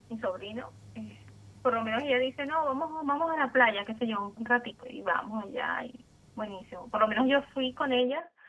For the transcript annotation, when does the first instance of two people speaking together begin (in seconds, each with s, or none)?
none